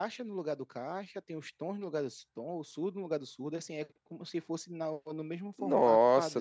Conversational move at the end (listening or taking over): taking over